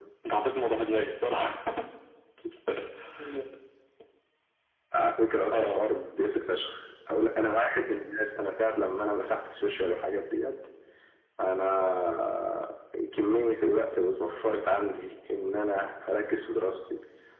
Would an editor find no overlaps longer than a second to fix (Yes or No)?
Yes